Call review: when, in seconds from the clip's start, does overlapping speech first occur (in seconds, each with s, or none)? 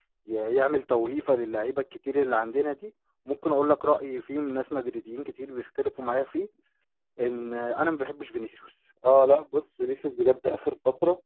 none